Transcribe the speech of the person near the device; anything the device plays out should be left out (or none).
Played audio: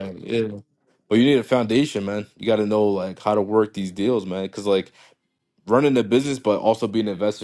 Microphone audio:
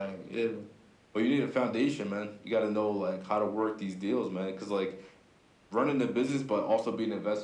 none